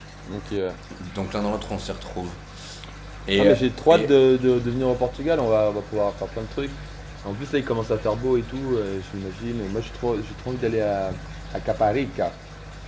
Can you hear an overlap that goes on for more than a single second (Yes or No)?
No